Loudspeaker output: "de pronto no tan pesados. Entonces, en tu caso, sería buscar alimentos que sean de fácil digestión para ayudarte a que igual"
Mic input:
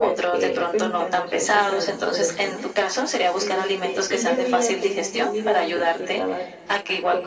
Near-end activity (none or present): present